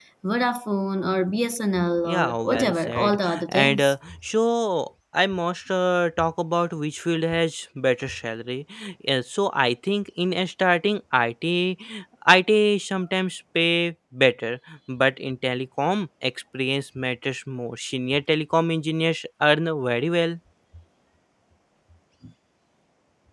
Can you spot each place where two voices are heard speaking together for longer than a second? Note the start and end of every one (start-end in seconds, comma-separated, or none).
2.0-3.9